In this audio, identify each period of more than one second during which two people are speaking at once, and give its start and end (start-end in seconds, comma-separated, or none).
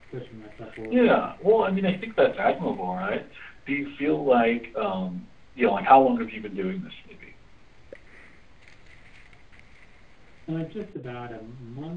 none